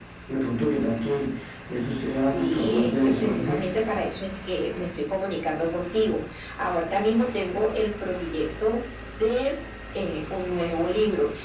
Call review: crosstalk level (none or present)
present